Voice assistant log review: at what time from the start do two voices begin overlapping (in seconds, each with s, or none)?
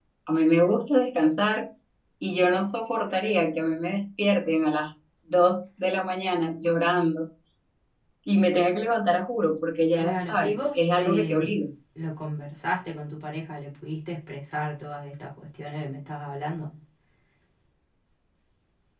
10.0 s